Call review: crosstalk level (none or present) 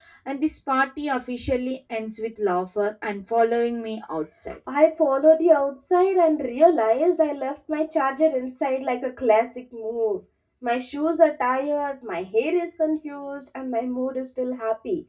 none